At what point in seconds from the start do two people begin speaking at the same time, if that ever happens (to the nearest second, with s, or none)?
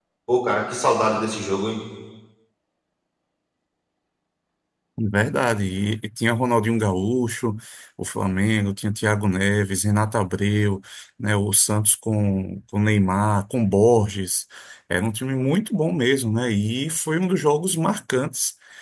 none